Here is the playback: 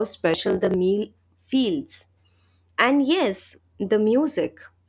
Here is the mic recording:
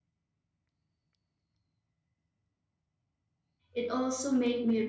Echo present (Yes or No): No